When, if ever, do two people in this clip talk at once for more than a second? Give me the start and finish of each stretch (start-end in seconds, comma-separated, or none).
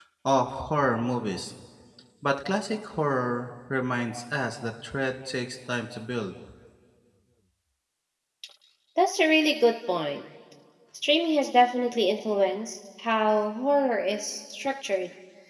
none